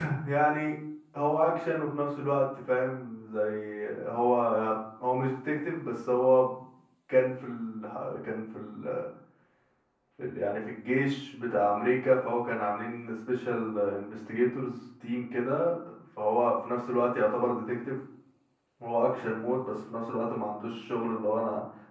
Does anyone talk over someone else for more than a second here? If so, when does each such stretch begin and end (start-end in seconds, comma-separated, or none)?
none